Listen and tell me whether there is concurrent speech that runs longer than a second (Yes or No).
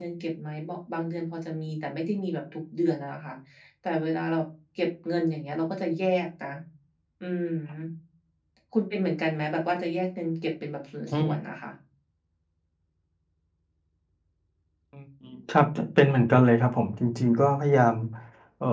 No